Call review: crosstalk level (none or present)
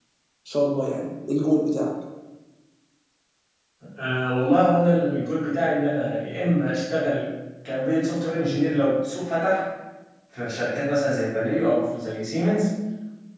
none